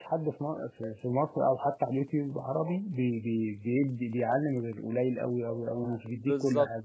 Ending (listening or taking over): taking over